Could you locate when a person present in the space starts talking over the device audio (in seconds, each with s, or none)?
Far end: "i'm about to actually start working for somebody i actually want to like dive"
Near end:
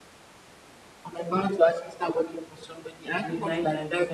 3.2 s